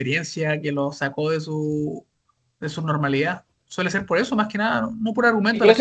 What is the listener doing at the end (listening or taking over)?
taking over